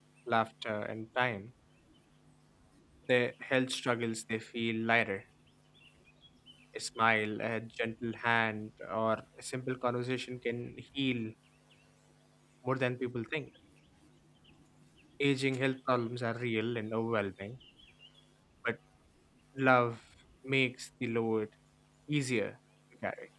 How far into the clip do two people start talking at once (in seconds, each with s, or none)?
none